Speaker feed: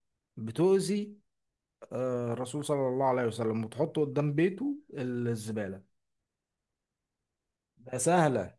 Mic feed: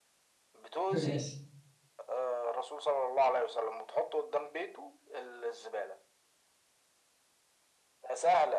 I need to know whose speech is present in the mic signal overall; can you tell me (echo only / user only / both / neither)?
both